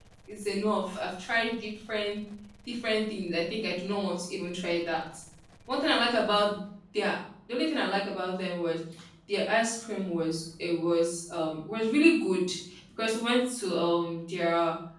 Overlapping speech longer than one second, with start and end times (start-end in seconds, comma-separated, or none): none